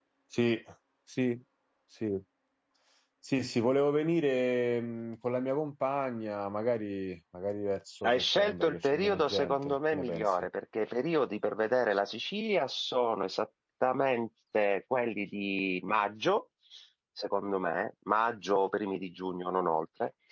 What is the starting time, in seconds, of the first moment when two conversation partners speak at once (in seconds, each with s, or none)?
8.0 s